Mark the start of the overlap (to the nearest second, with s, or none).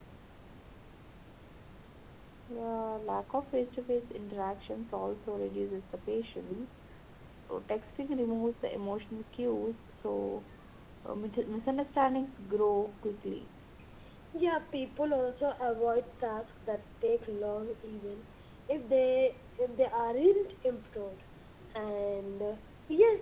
none